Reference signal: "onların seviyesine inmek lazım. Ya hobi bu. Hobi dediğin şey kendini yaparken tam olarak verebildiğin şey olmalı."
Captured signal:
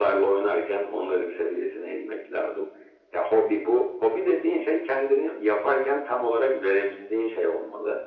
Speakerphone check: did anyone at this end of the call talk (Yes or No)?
No